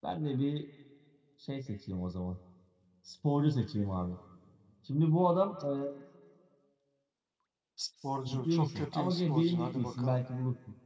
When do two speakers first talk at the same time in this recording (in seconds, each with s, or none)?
8.2 s